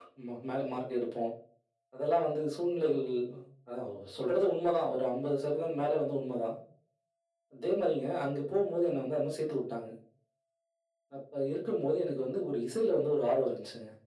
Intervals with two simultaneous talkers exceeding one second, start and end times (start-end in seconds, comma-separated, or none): none